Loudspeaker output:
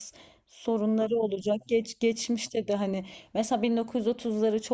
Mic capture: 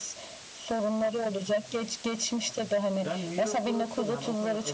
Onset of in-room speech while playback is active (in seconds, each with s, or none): 3.0 s